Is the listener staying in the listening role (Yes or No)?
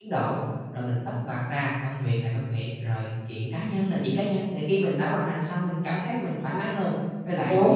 Yes